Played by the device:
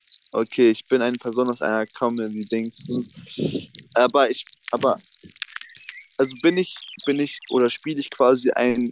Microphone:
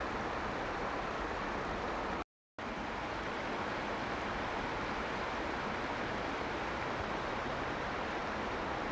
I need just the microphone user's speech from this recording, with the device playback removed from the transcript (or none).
none